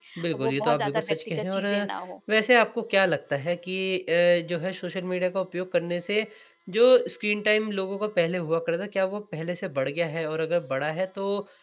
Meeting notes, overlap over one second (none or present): present